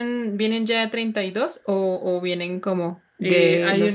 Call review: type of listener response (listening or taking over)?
taking over